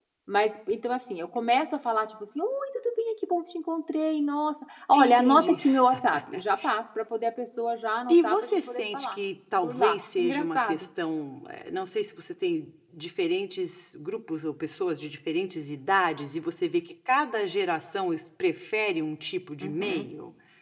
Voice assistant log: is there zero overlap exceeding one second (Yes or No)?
No